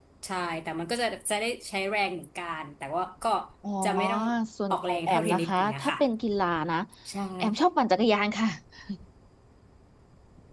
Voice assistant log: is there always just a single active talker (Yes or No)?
No